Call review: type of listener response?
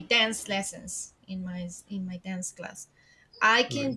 listening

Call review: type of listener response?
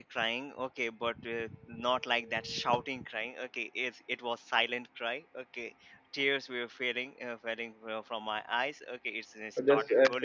taking over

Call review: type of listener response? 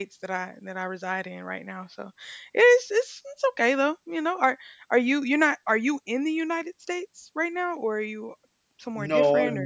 taking over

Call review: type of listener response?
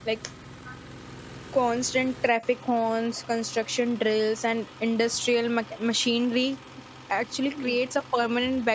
listening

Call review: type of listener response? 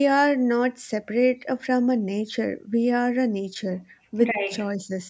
listening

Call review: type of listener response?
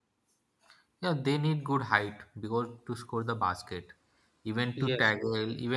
listening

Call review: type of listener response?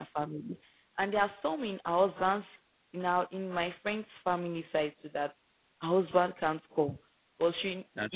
listening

